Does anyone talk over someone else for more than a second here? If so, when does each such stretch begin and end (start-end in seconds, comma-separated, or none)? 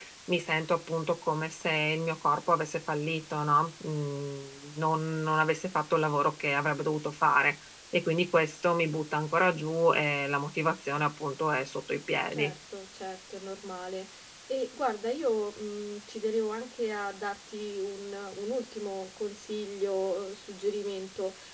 none